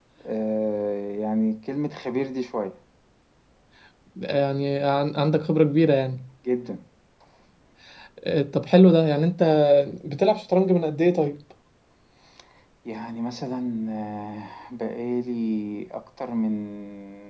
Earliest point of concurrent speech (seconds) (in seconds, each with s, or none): none